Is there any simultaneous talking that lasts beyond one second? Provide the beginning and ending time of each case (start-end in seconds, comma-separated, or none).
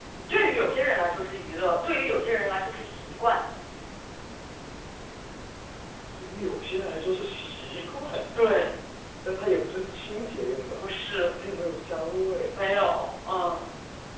none